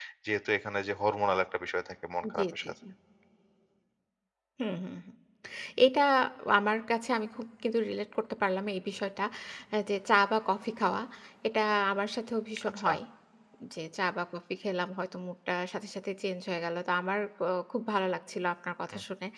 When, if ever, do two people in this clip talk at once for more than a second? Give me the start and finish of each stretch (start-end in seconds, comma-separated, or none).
none